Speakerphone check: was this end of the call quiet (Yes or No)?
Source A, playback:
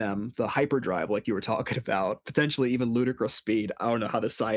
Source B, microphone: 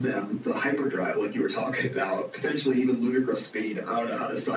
Yes